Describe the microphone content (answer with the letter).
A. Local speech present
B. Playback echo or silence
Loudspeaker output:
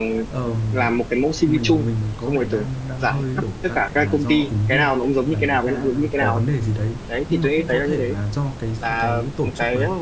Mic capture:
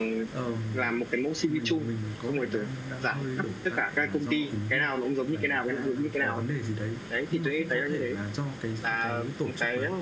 B